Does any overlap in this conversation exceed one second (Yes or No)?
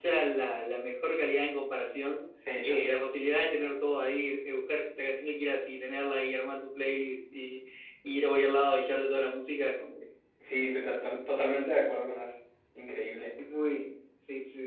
No